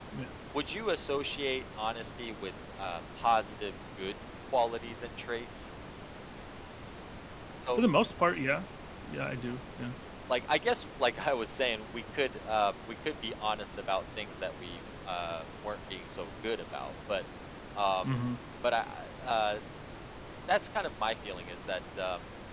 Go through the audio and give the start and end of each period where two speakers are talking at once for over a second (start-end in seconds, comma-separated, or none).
none